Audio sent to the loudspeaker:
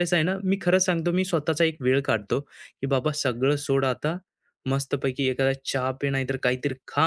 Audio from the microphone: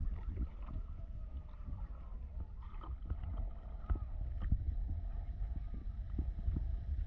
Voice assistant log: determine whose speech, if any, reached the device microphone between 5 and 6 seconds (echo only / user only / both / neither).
neither